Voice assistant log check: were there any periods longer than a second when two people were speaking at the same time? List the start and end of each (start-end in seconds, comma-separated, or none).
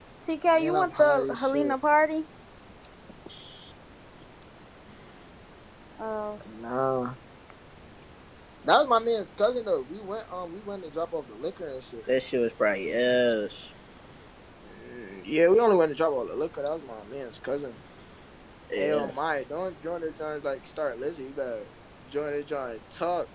0.5-1.8